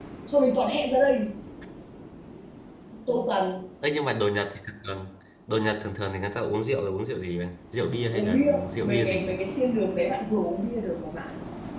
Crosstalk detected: Yes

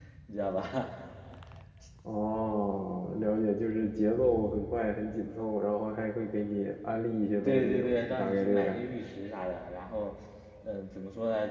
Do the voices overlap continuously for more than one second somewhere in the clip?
Yes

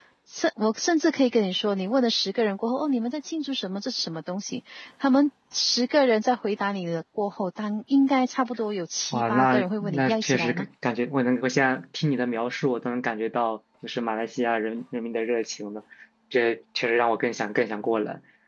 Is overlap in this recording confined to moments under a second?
No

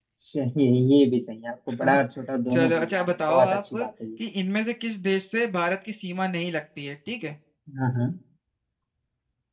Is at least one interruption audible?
Yes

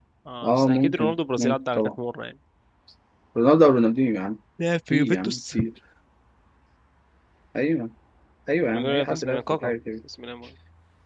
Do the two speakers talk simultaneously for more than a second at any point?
Yes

